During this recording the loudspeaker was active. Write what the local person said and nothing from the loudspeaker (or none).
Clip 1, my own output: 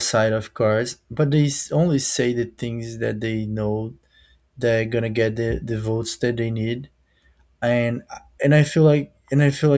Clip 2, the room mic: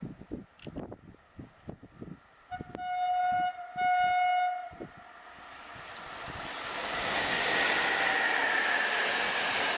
none